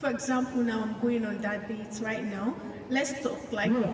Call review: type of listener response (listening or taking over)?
taking over